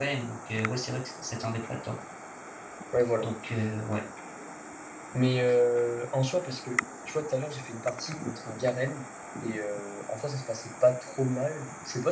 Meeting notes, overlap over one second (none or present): none